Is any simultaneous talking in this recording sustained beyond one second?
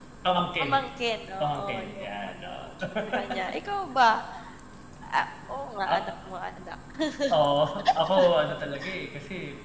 Yes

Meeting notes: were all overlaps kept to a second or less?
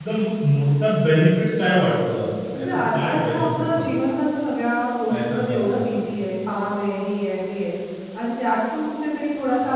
No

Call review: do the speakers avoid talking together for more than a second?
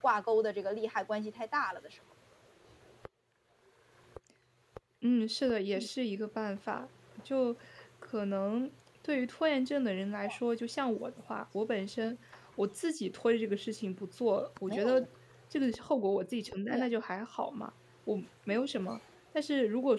Yes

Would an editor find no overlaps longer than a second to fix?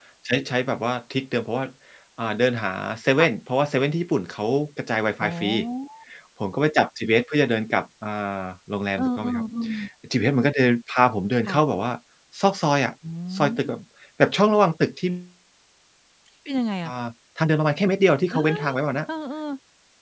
Yes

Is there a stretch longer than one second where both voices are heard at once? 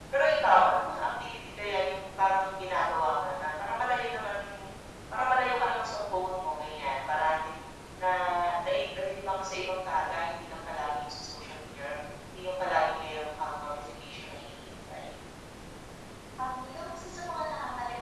No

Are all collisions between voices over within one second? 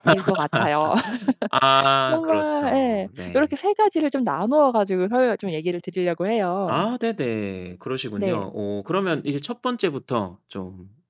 No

